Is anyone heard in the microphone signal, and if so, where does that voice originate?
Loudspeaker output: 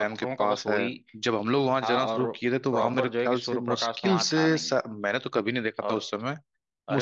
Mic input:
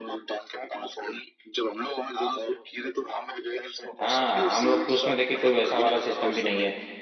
both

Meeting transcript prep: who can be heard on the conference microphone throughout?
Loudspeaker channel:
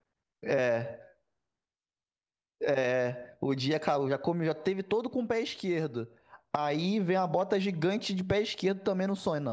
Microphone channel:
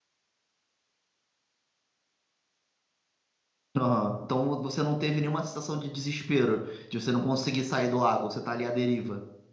user only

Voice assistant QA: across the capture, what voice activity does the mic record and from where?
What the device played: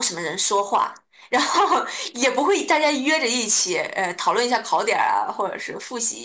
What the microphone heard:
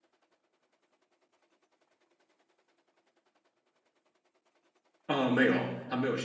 user only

